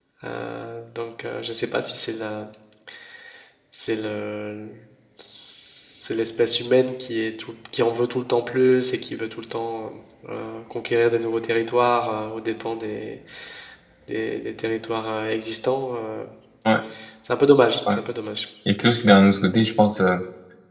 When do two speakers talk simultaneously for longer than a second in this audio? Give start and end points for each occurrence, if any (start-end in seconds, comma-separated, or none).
none